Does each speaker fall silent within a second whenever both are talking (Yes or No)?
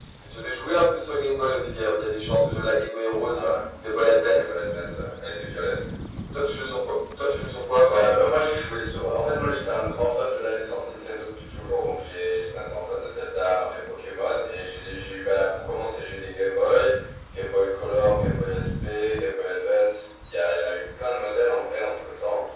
Yes